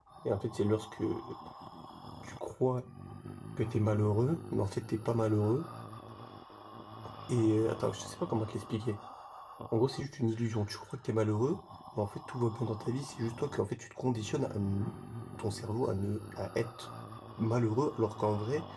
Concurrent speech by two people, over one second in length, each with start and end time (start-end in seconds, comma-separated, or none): none